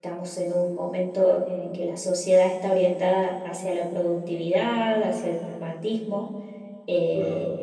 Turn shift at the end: No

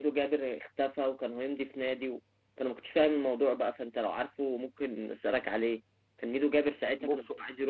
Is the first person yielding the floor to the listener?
No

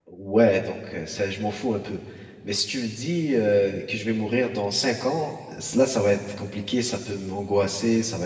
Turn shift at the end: No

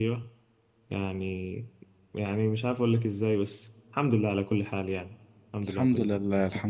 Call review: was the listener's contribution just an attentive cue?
No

